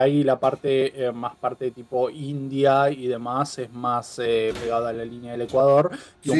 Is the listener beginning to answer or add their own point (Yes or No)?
No